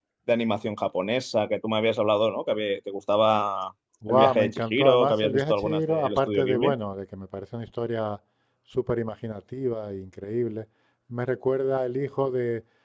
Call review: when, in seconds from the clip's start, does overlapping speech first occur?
4.0 s

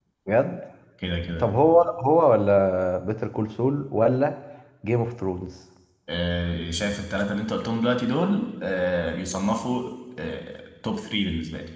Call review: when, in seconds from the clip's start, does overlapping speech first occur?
none

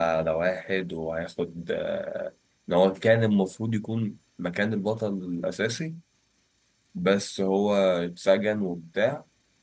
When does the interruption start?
none

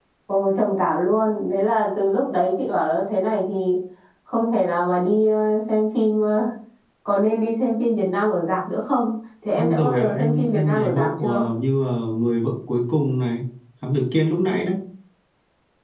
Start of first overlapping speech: 9.6 s

